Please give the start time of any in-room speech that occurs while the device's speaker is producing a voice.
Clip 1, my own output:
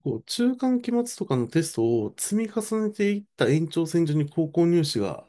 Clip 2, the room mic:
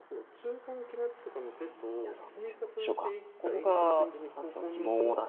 2.0 s

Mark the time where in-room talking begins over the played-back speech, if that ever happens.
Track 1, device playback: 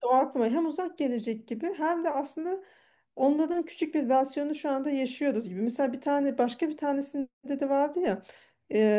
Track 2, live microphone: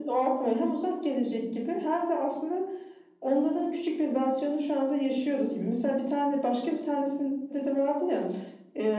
none

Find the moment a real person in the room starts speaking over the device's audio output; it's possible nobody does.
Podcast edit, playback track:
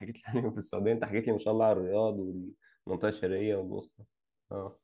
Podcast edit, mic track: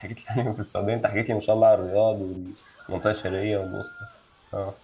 none

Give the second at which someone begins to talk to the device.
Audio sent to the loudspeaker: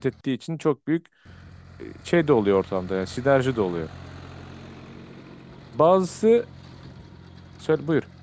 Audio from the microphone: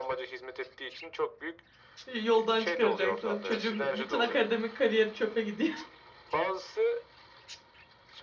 2.1 s

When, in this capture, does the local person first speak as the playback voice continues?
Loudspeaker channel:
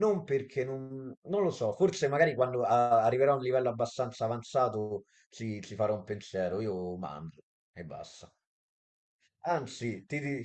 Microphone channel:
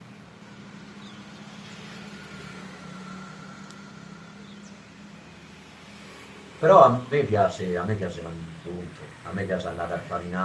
6.5 s

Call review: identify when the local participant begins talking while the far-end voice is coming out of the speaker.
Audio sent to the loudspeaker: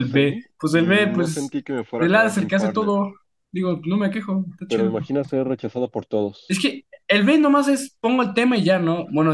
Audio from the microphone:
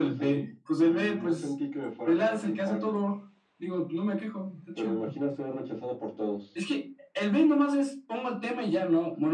none

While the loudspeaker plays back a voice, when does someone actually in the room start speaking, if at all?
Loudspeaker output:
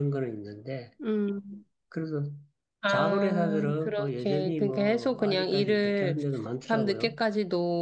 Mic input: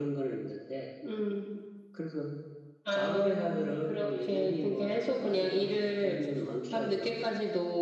none

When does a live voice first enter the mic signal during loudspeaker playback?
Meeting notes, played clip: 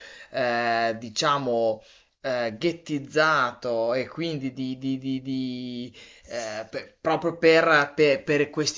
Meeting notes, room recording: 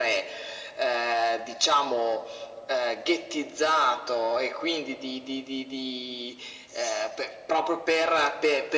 none

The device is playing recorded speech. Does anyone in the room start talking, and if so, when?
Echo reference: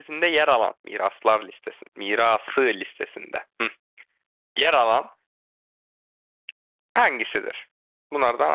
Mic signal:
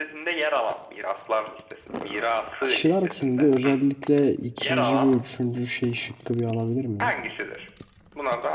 2.6 s

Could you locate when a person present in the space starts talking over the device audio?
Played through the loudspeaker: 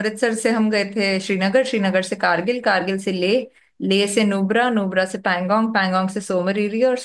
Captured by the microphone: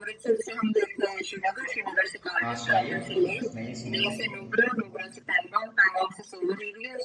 2.4 s

